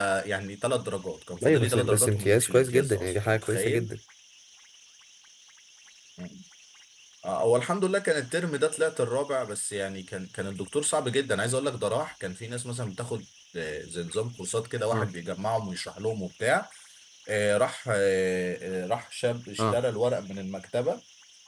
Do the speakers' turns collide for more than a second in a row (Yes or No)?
Yes